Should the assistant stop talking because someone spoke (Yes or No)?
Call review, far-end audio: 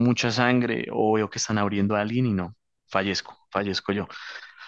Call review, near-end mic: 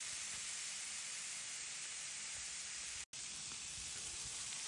No